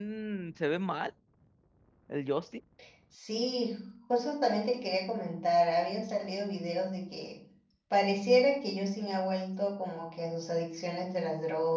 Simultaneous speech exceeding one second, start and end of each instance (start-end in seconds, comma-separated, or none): none